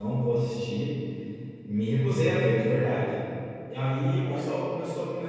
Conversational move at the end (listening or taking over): listening